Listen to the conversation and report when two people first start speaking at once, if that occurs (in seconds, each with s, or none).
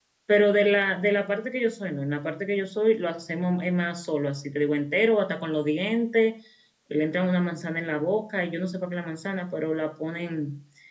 none